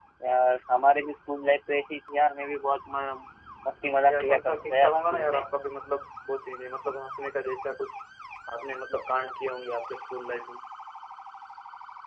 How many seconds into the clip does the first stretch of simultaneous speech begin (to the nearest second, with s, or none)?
4 s